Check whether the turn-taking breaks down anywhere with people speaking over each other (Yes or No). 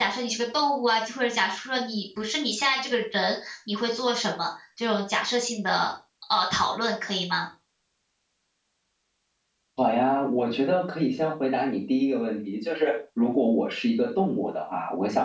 No